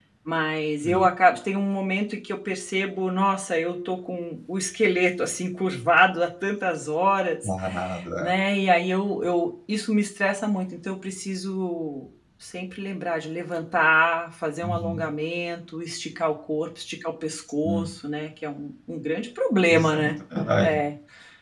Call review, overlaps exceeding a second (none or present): none